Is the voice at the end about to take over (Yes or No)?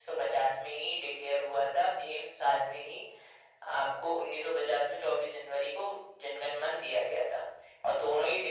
No